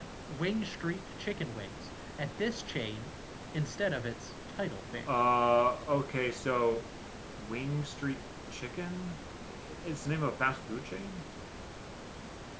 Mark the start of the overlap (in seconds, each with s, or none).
none